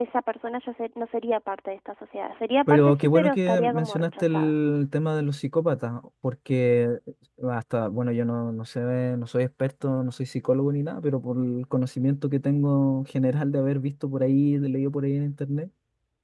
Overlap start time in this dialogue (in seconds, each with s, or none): 2.7 s